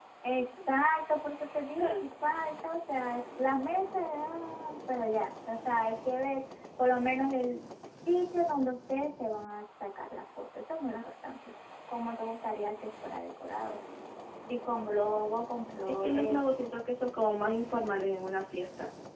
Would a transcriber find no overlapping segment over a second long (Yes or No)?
Yes